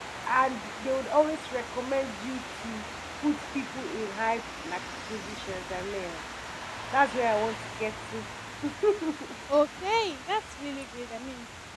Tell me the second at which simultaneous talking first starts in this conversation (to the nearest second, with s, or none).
none